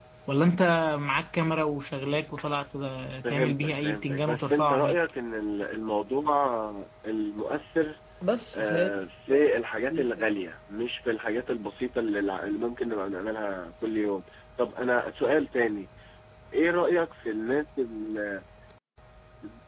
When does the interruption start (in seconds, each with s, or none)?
3.3 s